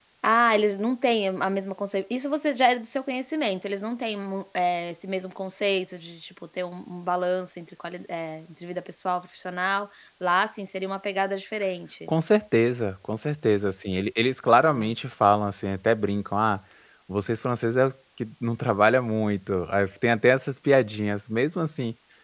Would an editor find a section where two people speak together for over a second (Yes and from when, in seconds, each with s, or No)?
No